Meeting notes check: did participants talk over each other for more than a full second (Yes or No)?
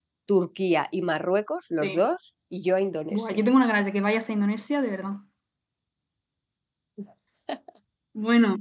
No